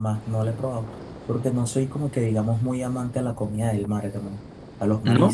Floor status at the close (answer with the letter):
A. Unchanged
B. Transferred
A